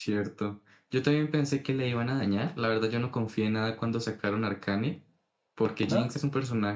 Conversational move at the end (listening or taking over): listening